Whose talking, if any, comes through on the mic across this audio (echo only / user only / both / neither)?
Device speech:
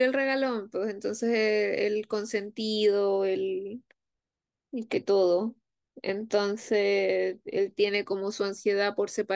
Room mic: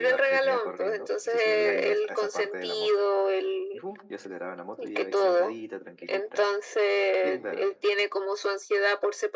both